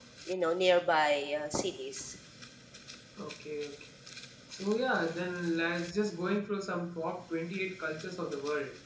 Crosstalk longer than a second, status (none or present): none